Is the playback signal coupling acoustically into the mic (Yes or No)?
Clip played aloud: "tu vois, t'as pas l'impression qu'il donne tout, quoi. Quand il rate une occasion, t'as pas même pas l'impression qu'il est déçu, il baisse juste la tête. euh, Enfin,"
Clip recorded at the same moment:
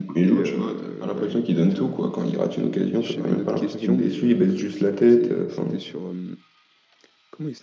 Yes